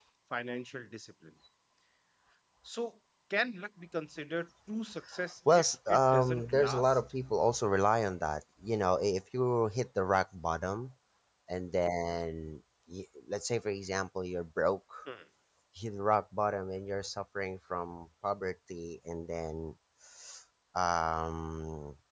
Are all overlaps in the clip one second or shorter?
No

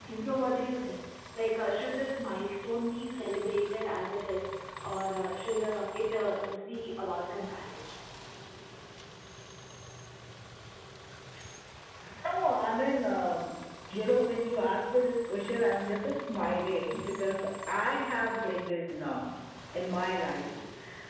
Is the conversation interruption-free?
Yes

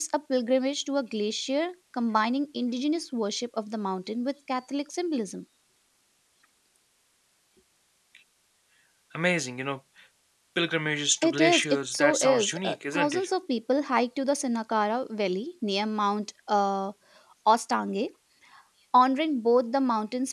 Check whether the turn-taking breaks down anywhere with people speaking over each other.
Yes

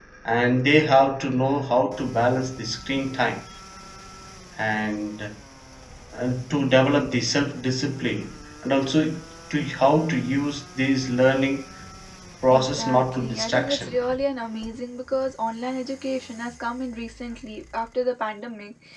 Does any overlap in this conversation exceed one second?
Yes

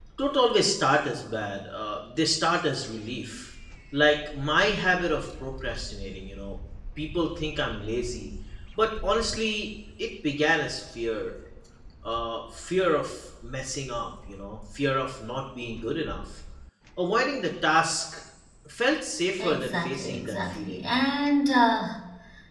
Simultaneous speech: Yes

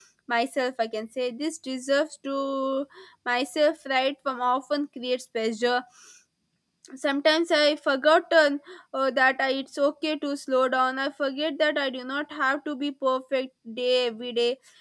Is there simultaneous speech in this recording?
No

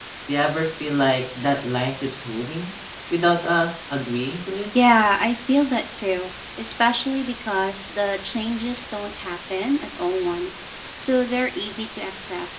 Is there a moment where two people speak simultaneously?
No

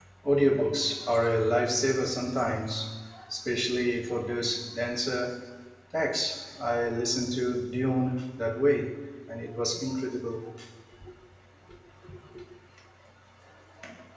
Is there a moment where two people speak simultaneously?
No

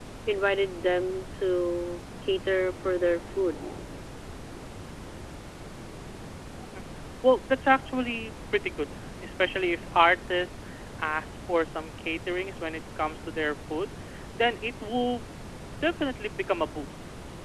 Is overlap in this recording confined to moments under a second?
Yes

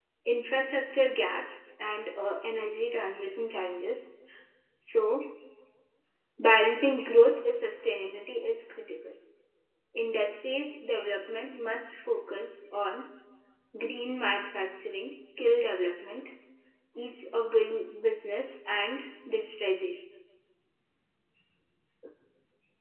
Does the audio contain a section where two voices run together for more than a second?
No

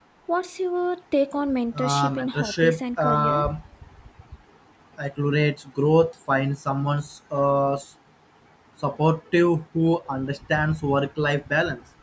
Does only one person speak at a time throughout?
No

